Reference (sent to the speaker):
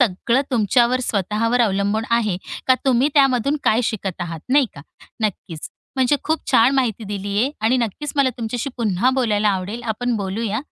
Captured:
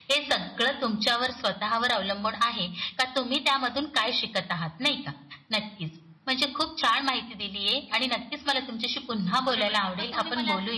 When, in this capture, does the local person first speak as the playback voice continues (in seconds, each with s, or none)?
9.4 s